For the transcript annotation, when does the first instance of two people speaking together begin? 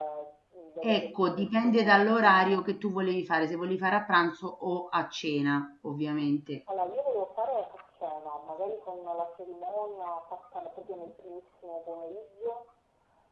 1 s

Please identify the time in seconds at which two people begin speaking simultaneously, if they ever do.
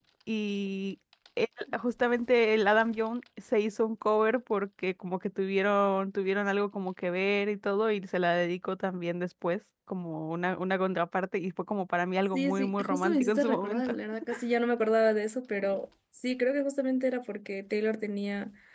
12 s

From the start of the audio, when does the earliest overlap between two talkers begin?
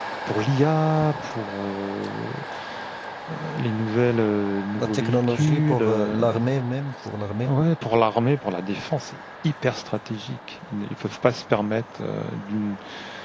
5 s

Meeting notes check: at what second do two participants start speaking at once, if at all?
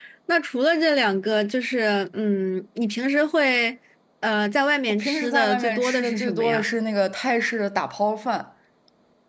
5 s

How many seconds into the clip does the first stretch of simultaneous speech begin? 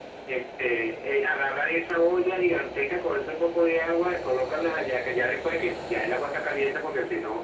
none

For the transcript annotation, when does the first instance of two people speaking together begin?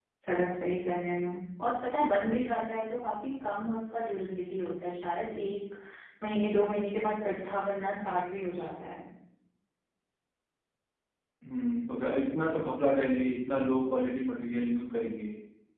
none

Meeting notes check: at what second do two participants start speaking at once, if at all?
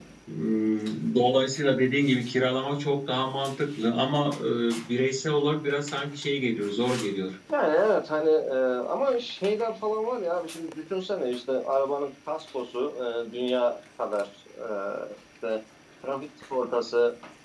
none

